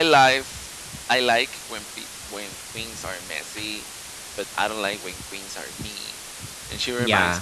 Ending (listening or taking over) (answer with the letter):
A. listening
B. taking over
A